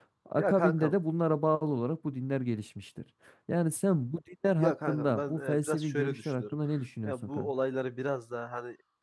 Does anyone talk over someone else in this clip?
Yes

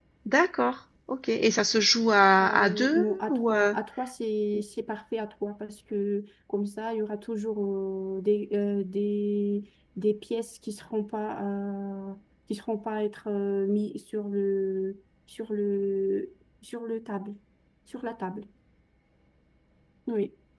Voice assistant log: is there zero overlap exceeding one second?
No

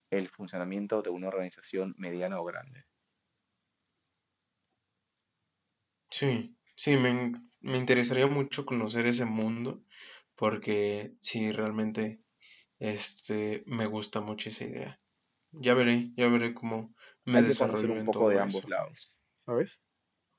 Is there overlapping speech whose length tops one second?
Yes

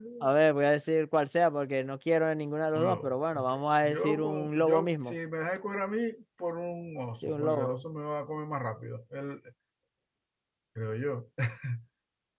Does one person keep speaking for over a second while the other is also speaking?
Yes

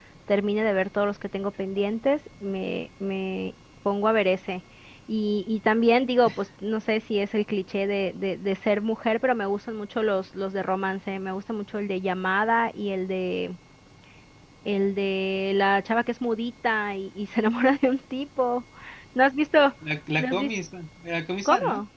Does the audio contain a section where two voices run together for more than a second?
No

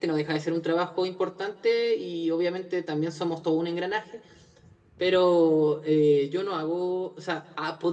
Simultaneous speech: No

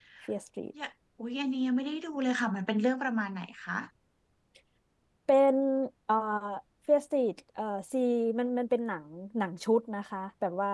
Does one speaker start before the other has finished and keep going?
No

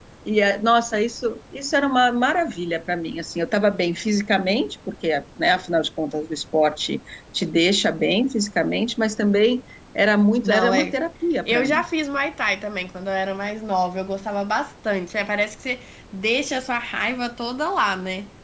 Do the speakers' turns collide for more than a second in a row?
No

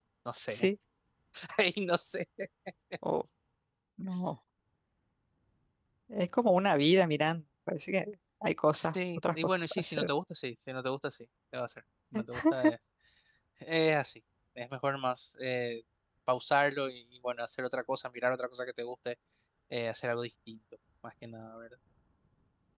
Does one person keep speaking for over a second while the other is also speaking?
Yes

